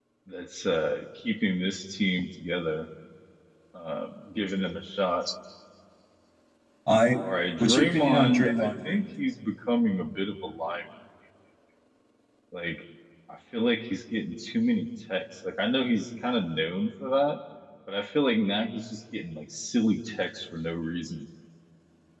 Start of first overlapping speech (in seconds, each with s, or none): 7.6 s